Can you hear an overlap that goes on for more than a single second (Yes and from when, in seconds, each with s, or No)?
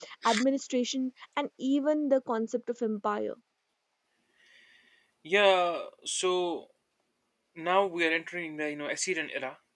No